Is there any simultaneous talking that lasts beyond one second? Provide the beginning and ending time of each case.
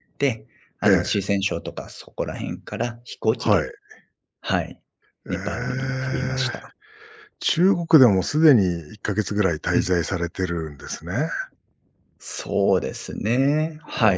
5.3-6.5

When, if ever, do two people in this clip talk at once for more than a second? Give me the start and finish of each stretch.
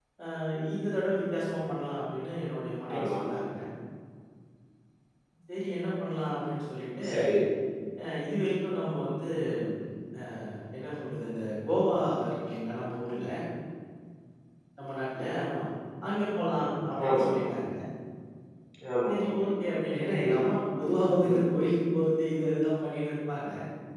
none

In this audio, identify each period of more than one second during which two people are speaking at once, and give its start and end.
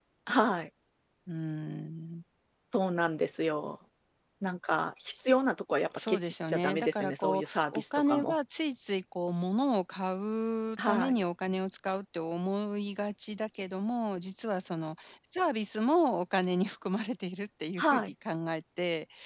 6.0-8.4

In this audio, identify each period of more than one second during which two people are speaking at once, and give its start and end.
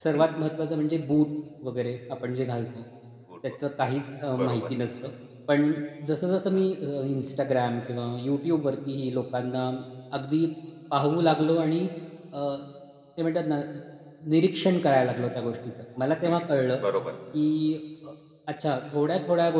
none

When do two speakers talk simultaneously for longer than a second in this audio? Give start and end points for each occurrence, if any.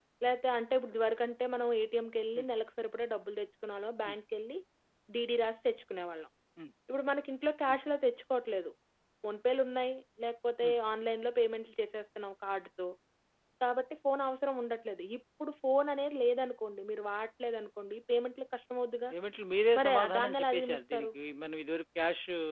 19.8-21.1

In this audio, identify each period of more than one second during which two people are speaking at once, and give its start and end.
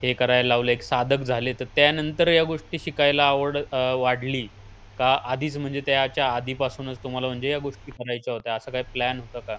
none

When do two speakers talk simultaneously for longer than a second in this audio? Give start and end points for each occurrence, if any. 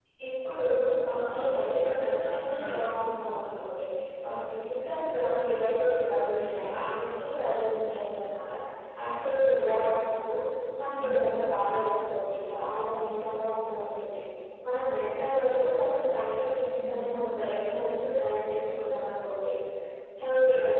1.4-2.8

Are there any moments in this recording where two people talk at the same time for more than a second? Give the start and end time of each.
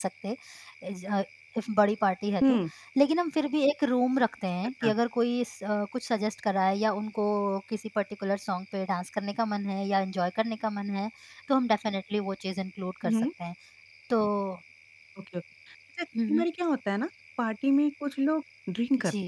none

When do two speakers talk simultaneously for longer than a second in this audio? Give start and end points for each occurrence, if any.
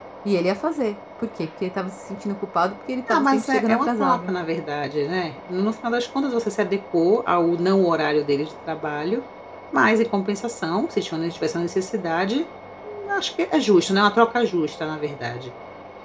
3.1-4.3

